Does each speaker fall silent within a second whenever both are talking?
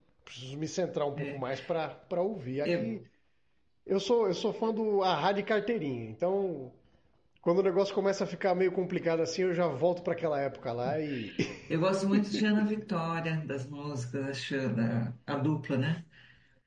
Yes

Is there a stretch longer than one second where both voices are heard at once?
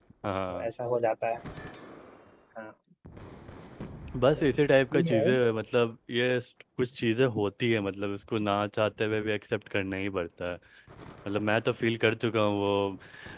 No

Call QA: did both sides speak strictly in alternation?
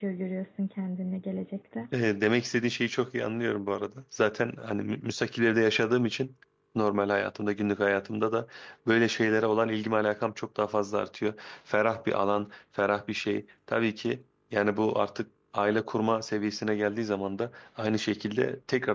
Yes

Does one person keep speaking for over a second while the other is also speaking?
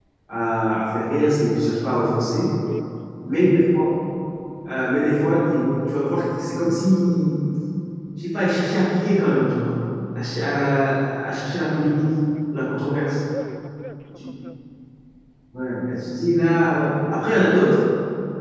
No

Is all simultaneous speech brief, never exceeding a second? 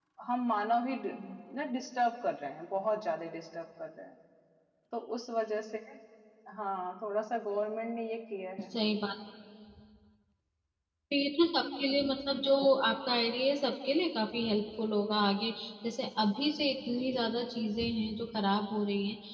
Yes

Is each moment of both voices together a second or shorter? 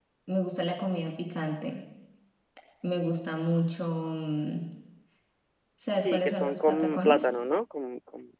No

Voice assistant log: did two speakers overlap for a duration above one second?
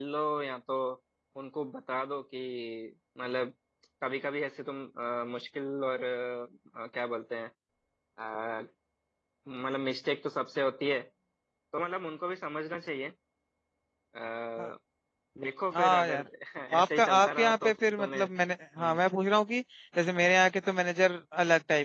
Yes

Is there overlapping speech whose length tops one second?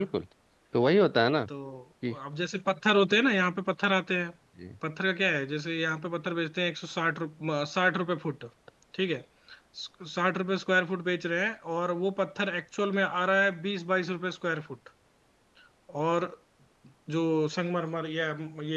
No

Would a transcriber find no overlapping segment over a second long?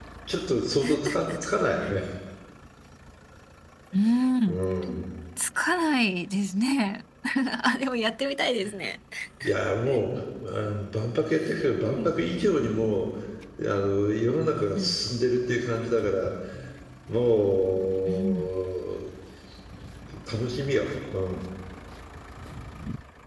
Yes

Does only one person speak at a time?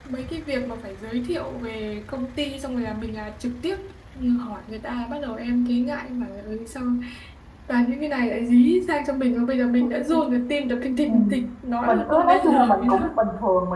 No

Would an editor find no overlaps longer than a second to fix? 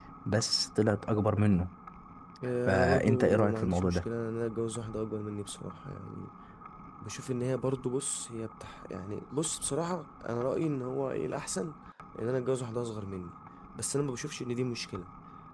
No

